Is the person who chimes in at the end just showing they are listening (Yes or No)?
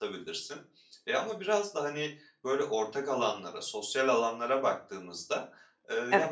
Yes